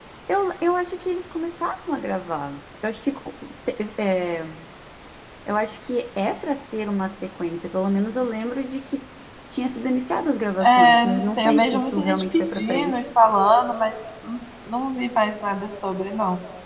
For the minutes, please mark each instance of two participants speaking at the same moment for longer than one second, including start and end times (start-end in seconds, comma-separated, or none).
10.6-13.0